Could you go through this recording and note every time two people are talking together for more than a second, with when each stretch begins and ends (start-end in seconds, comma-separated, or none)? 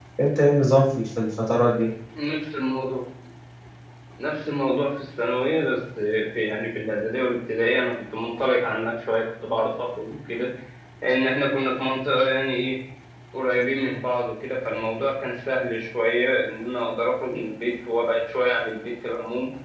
none